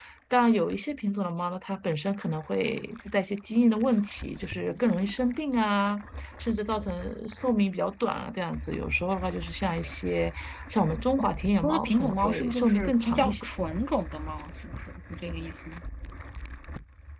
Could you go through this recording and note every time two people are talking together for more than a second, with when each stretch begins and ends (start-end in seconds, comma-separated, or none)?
11.6-13.5